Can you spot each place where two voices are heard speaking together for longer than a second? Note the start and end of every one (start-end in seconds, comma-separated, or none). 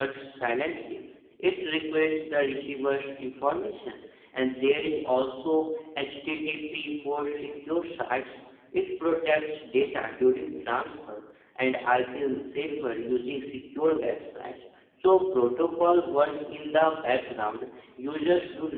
none